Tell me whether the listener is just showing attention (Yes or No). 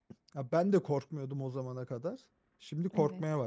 No